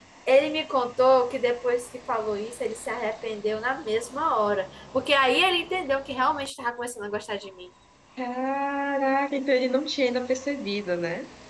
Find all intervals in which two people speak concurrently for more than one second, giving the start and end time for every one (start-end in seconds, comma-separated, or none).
none